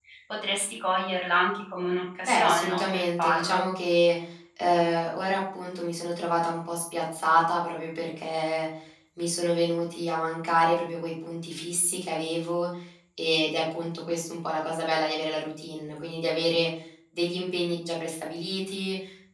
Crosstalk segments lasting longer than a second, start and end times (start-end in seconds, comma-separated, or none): 2.2-3.6